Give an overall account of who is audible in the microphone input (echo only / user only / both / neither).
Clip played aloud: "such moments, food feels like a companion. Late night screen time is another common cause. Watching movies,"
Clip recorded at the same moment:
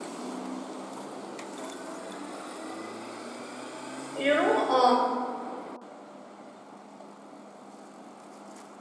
user only